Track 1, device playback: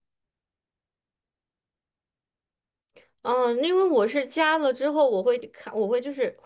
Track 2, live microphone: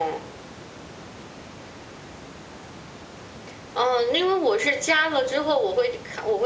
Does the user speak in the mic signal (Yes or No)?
No